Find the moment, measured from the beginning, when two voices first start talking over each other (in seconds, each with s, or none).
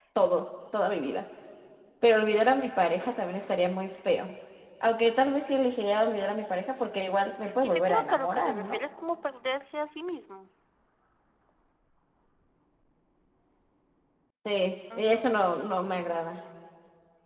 7.4 s